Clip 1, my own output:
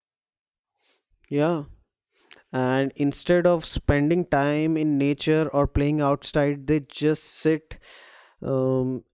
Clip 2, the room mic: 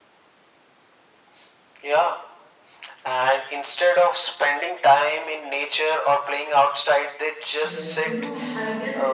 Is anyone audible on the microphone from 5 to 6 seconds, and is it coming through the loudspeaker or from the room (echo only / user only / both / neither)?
echo only